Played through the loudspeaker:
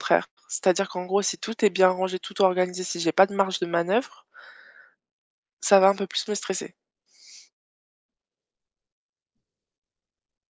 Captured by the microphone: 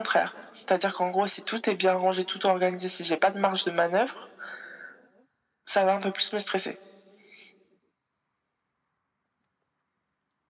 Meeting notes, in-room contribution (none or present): none